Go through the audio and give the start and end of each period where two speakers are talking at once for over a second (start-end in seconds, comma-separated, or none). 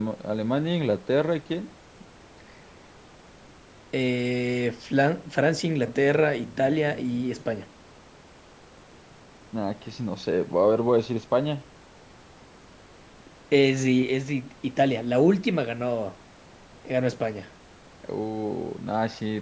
5.8-7.0